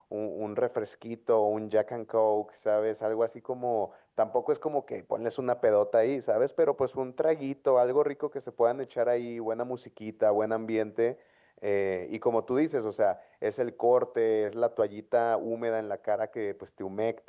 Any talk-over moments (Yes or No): No